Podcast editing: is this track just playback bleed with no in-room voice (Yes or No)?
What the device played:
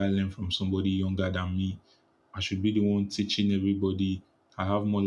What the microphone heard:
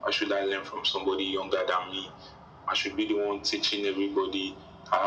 Yes